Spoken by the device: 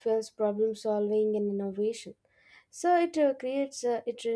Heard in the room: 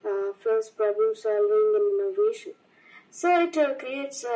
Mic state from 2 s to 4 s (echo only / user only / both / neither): echo only